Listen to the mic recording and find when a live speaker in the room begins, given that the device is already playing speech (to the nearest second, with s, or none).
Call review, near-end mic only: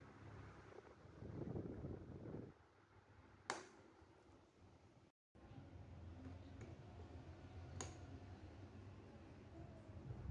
none